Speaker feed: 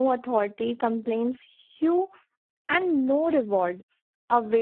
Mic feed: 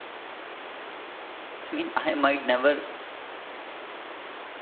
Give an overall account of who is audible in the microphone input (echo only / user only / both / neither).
user only